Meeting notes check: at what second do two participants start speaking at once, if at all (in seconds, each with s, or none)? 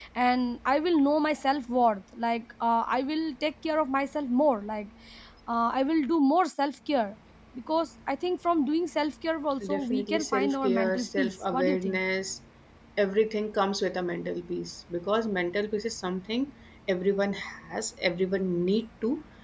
9.6 s